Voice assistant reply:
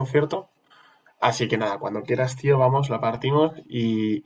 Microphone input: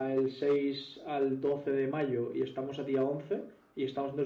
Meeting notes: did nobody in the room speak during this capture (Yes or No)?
No